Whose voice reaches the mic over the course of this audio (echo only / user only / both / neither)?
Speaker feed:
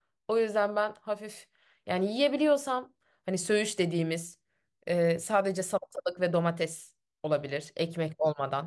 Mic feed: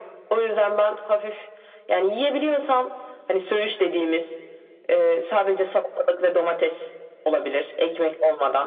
echo only